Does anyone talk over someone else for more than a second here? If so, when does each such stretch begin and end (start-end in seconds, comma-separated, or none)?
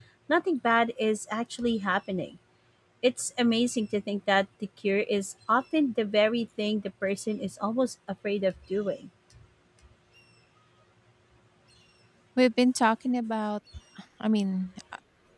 none